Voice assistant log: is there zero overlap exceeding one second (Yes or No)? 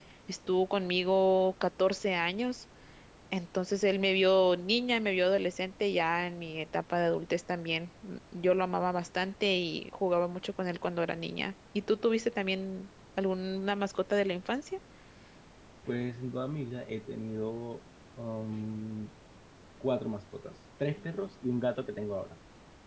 Yes